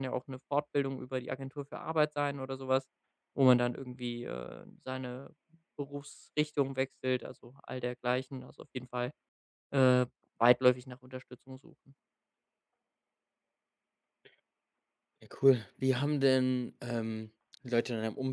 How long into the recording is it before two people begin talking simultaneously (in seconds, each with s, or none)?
none